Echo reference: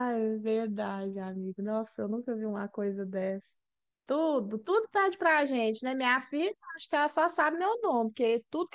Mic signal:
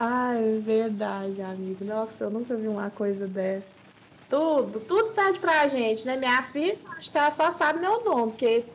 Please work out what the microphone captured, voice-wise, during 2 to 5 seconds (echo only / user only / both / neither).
echo only